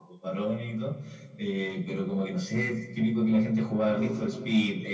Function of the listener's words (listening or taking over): listening